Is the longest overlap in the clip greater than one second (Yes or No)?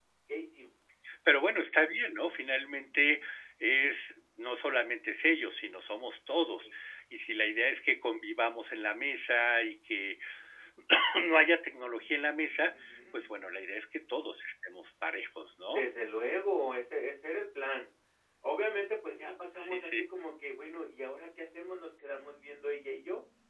No